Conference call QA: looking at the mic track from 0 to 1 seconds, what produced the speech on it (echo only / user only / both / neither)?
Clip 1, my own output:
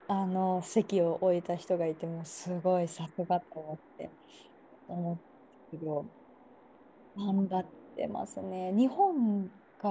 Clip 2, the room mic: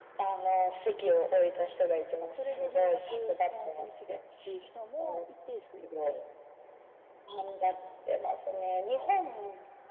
echo only